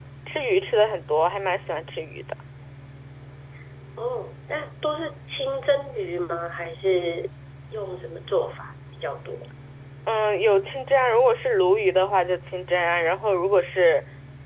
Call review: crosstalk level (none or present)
none